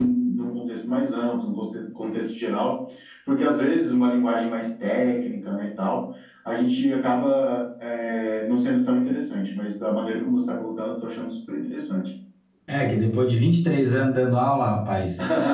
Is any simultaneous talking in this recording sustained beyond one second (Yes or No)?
No